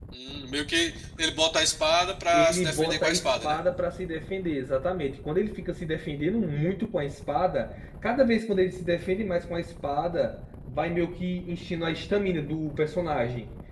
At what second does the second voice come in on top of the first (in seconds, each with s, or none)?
2.3 s